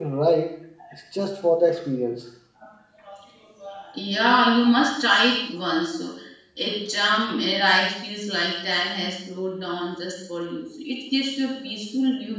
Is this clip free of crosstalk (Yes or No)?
Yes